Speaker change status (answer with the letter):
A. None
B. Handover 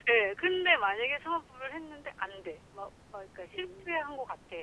A